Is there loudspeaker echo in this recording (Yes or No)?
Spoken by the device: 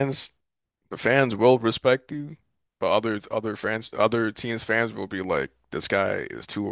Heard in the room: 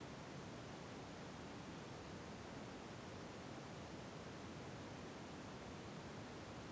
No